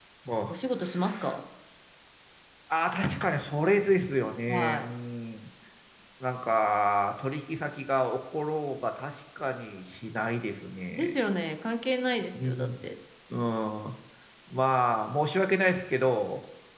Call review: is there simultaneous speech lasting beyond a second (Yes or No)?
No